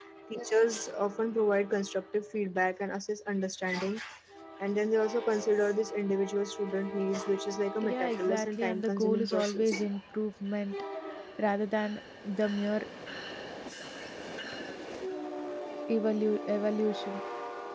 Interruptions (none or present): present